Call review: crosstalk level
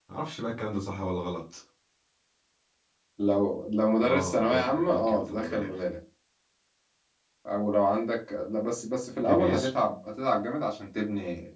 present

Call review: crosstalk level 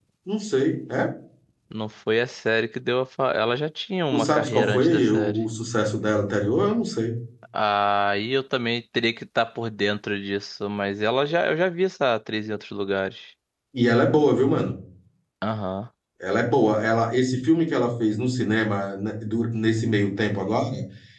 present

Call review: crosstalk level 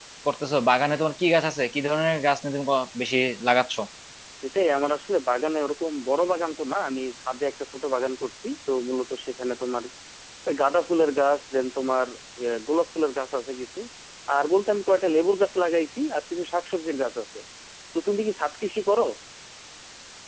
none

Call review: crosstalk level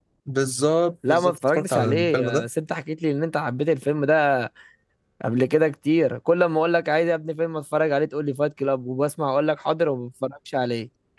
present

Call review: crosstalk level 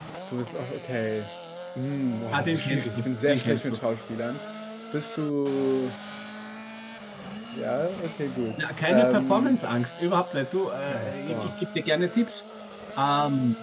present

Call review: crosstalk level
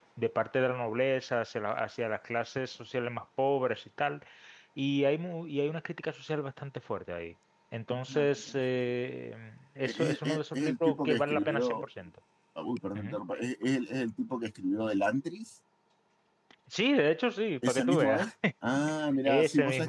present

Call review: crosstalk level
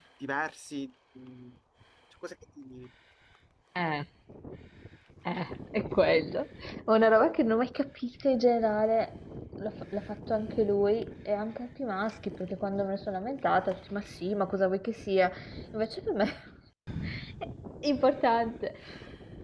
none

